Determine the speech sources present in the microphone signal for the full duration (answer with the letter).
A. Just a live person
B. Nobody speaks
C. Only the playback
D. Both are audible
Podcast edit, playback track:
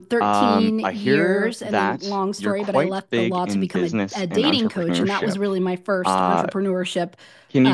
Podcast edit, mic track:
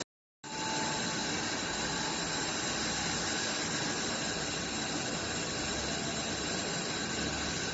B